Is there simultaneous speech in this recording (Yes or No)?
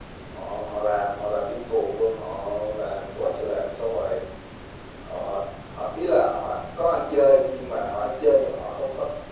No